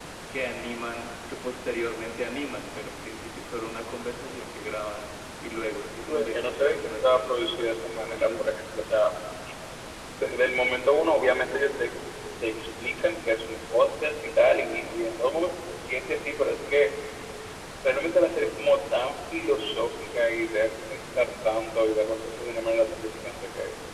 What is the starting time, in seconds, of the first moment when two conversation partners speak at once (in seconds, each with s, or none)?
6.1 s